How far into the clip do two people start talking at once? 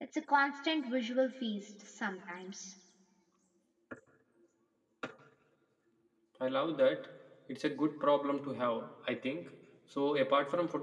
none

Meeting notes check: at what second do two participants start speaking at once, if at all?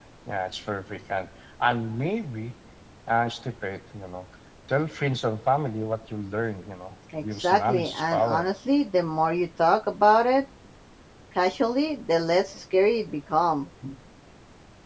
7.1 s

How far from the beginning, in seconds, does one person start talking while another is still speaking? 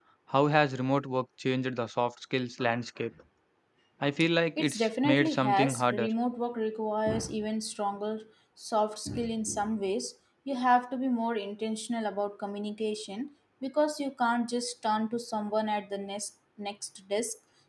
4.6 s

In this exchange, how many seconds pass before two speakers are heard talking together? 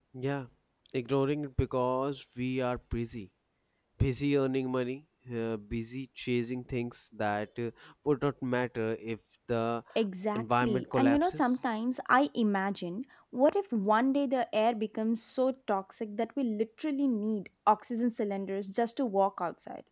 10.3 s

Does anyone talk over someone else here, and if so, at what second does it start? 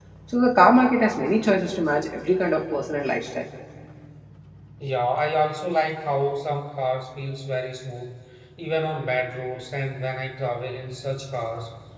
none

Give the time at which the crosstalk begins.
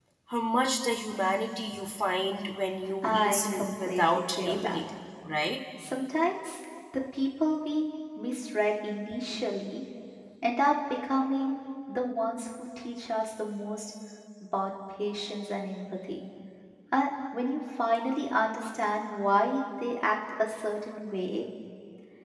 3.0 s

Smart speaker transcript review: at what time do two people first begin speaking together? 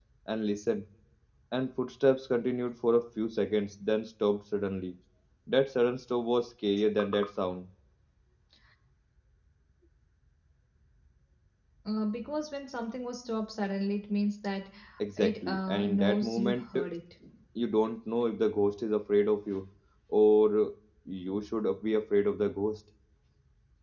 15.2 s

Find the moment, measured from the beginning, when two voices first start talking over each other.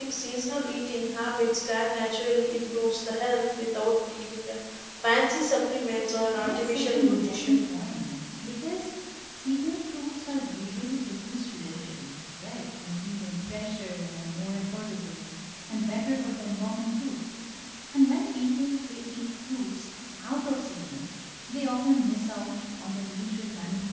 6.4 s

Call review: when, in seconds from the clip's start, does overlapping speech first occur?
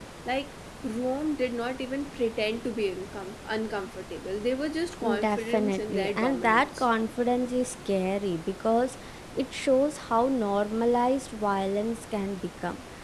5.0 s

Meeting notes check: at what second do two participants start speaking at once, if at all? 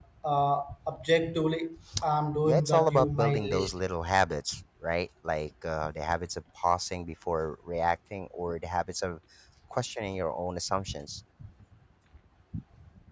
2.5 s

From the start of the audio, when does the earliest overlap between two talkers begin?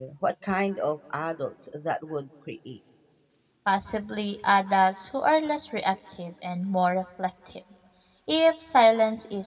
none

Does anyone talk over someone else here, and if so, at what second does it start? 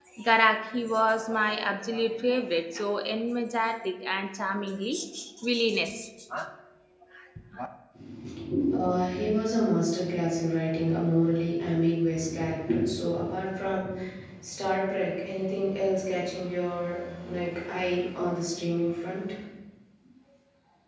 none

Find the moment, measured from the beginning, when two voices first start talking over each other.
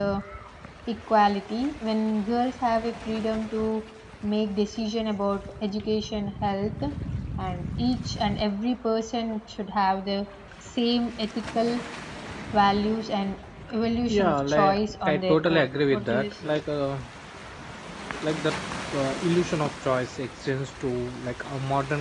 14.1 s

